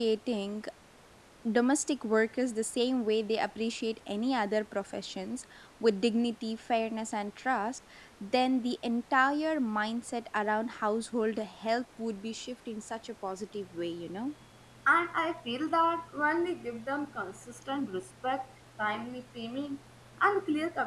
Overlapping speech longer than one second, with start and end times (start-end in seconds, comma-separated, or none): none